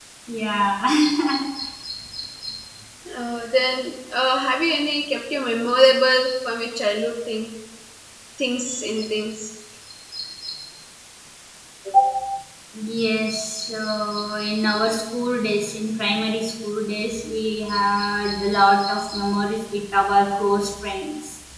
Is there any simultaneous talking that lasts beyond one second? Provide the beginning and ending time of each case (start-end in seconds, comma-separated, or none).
none